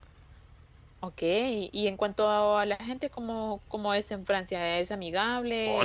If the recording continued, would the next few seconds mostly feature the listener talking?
Yes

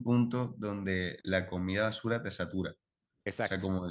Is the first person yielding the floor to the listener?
No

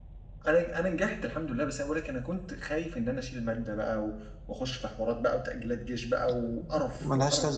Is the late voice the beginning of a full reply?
Yes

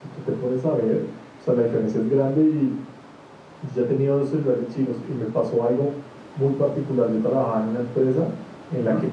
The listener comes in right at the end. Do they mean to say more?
No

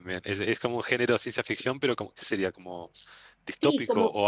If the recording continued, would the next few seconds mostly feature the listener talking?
Yes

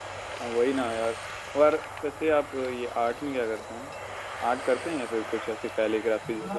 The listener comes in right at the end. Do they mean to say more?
Yes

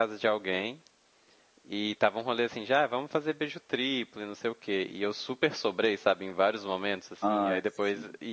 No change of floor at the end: Yes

